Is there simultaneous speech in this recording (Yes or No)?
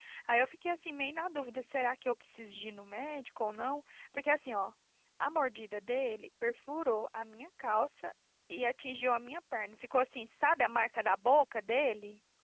No